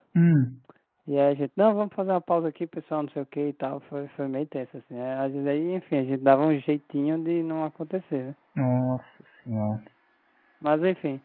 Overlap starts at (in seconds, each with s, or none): none